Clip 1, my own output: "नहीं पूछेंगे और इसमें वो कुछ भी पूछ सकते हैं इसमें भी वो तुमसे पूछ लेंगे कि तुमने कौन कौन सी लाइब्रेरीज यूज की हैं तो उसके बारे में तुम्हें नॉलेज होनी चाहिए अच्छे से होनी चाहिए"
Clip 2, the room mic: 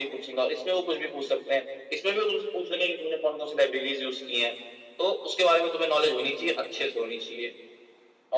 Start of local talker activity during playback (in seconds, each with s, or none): none